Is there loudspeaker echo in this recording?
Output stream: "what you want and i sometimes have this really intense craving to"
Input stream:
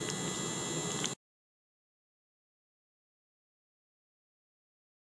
No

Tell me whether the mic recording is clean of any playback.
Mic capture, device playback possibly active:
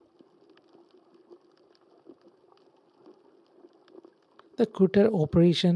Yes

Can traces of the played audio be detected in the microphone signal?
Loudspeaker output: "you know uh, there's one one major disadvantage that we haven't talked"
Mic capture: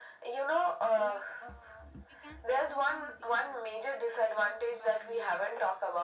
Yes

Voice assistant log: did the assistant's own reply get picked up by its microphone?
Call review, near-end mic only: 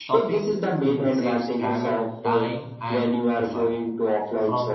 Yes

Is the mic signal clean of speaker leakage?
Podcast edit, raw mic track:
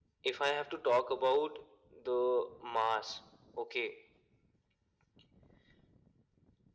No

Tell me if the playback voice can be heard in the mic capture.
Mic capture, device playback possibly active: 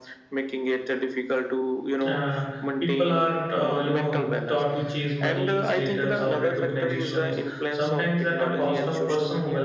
Yes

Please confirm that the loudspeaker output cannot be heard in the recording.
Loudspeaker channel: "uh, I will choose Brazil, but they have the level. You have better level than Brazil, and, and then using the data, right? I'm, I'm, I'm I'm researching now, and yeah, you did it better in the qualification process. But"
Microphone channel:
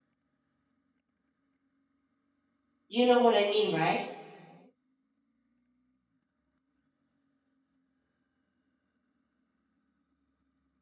Yes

